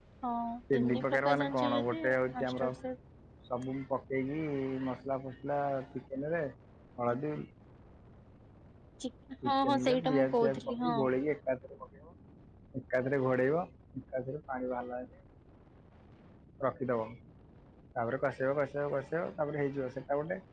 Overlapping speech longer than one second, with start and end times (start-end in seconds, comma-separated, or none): 0.7-2.7, 9.4-11.0